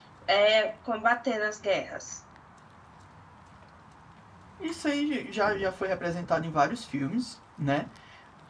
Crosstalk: none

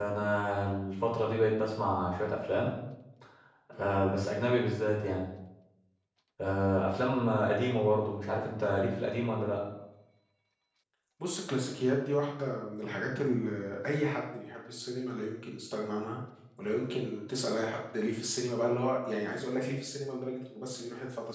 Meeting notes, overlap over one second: none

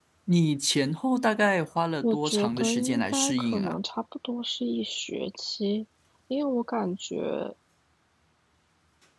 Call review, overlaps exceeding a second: present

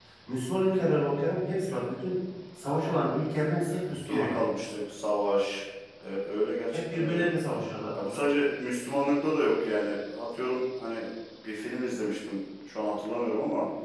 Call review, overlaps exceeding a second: none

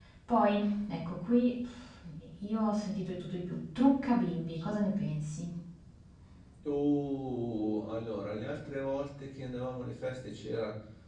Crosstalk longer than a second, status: none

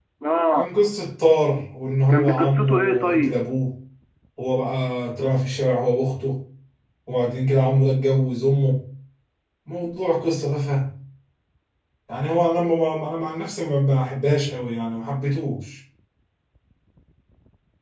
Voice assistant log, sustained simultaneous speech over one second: present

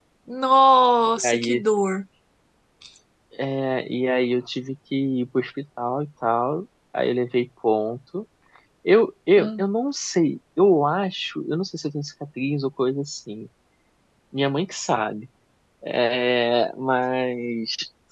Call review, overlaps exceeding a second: none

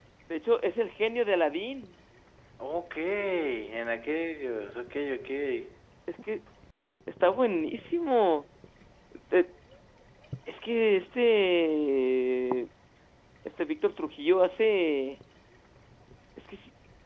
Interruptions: none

